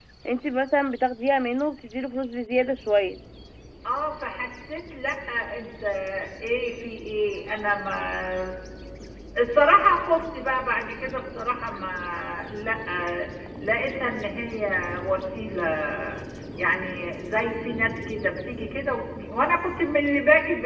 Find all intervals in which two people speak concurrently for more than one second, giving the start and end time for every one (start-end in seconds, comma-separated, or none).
none